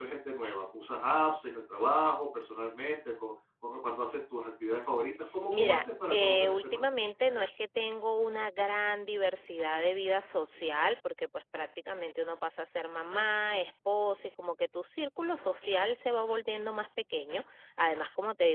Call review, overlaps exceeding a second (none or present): present